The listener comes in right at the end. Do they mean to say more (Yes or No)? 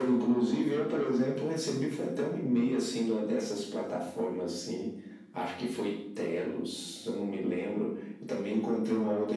No